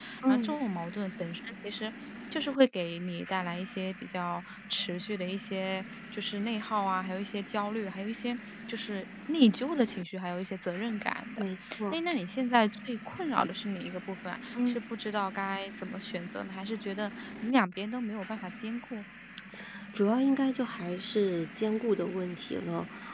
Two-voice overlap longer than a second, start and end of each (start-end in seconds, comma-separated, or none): none